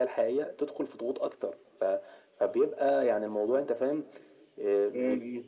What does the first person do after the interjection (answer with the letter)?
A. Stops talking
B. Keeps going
A